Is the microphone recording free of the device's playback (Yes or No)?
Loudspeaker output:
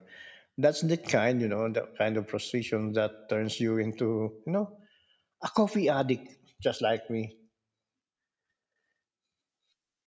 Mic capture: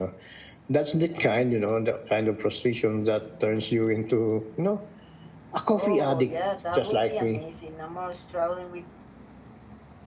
No